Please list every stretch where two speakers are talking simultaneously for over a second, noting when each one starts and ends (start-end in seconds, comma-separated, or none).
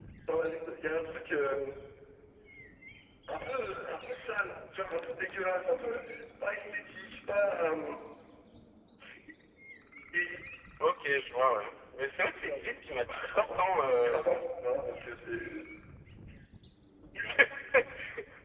13.1-14.4